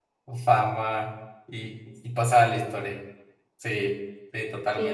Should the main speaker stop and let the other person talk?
Yes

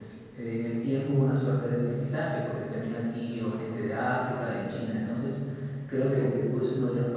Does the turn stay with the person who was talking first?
Yes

